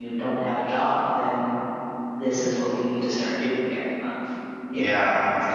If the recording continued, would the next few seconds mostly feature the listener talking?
Yes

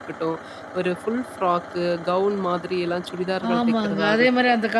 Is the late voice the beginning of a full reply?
Yes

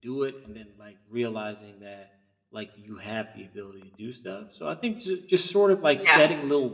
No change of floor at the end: Yes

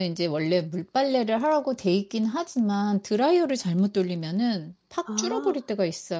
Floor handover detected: No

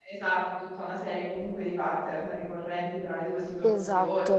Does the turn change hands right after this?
No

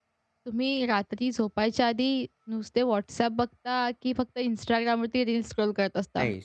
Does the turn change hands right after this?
Yes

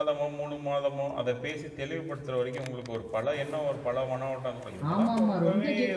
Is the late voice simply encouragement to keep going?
No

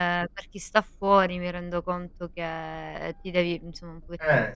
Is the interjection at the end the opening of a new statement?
No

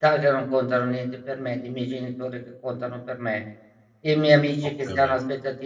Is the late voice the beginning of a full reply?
No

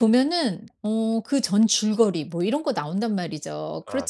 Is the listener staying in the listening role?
Yes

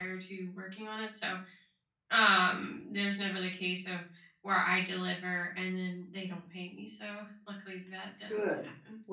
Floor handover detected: Yes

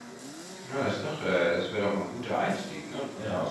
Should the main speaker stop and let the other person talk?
No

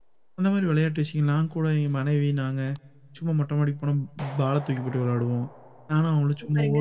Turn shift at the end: No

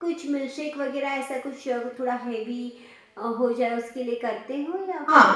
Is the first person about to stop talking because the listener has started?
Yes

